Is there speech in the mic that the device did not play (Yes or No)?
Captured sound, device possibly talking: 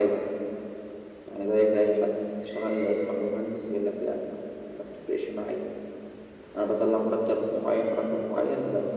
No